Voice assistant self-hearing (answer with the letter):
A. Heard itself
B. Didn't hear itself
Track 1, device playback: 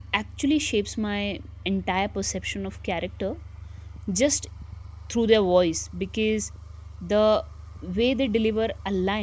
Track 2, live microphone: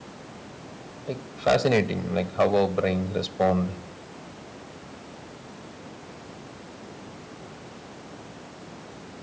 B